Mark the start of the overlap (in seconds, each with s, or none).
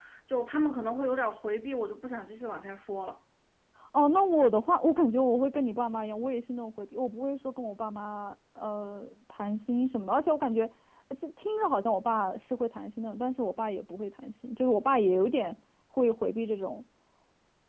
none